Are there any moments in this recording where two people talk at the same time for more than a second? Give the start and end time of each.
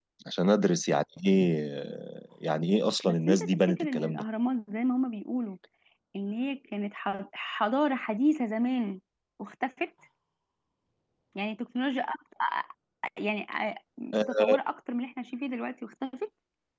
3.0-4.2

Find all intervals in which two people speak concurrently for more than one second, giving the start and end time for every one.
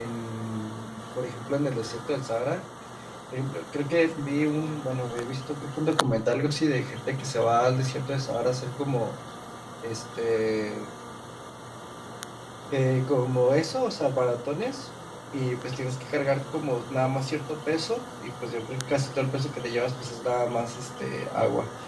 none

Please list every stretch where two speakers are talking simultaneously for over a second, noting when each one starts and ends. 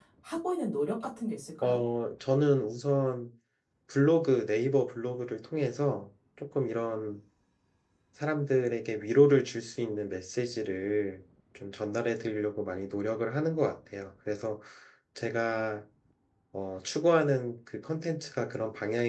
none

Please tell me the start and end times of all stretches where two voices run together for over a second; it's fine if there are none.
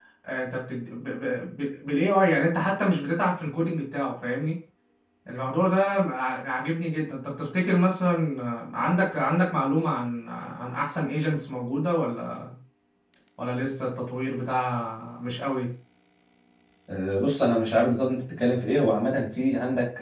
none

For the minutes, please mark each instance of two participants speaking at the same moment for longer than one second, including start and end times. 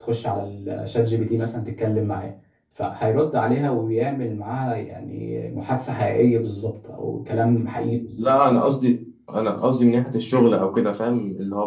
none

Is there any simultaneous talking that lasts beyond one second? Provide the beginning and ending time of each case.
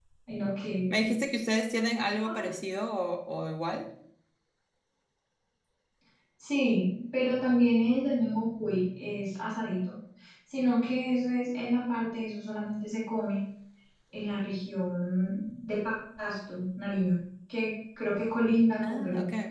none

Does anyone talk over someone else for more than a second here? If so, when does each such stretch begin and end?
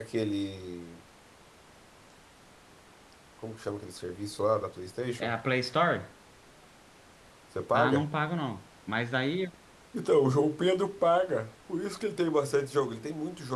none

